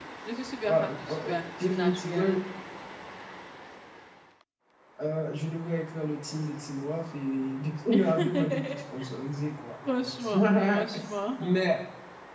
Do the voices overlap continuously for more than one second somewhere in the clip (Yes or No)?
Yes